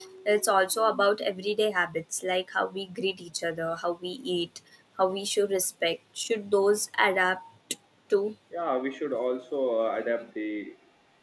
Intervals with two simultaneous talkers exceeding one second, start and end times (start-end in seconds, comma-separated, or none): none